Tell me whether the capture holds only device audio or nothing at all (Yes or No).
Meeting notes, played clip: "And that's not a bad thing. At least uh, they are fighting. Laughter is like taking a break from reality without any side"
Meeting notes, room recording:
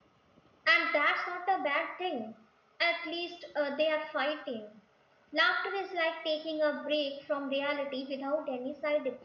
Yes